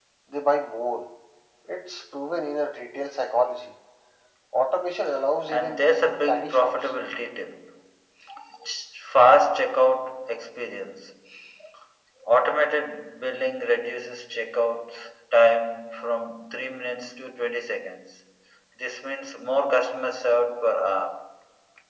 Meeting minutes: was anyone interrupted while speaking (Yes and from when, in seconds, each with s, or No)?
Yes, from 5.5 s